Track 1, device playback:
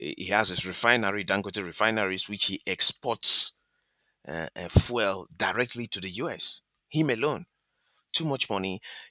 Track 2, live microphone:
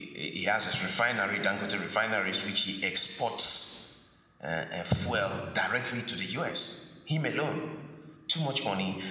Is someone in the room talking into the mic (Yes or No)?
No